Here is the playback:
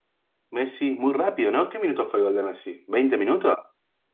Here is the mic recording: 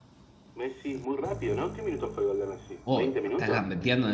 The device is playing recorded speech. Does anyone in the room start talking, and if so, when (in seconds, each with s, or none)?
2.8 s